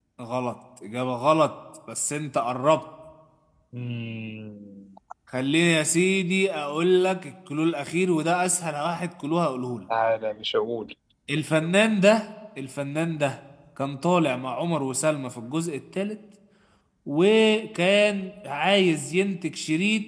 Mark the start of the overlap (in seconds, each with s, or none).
none